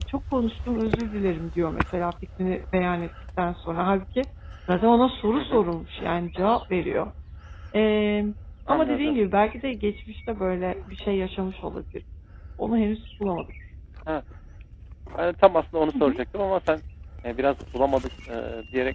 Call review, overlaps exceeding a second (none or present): none